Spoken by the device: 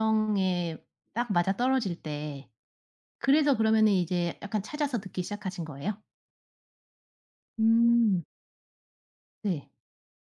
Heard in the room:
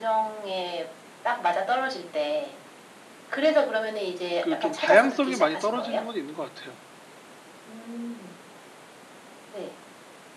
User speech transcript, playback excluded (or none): 그 좀 다양성이 많이 떨어지는 건 있는 것 같아요.